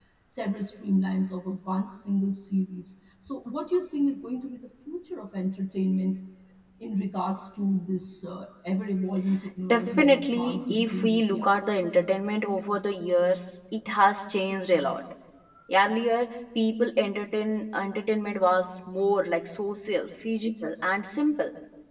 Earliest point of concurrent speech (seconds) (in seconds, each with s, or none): 9.7 s